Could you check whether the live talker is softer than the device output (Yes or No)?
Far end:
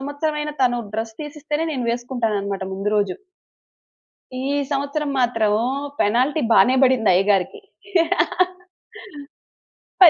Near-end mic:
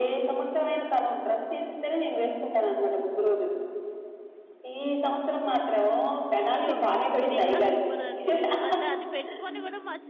Yes